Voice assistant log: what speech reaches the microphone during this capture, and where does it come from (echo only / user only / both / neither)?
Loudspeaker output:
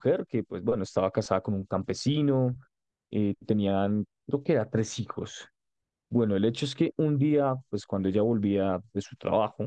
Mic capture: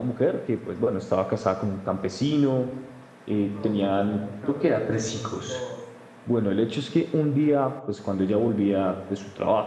both